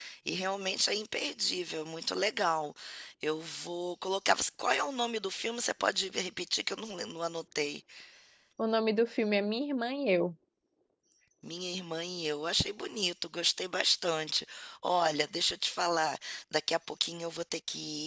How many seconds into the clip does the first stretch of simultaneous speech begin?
none

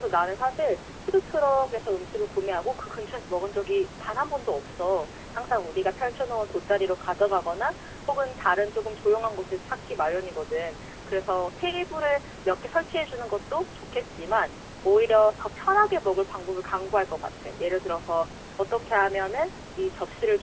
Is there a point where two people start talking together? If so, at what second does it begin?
none

